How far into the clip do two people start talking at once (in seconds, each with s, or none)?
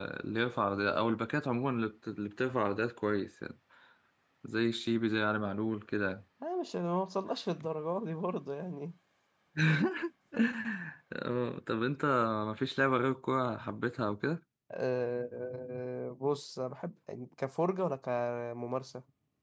none